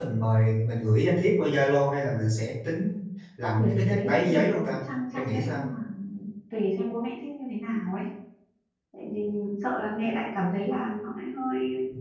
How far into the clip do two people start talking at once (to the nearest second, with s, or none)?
4 s